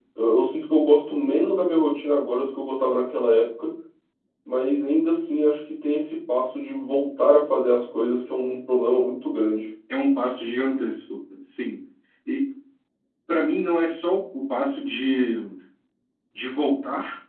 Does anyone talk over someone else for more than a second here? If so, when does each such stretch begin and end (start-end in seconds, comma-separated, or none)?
none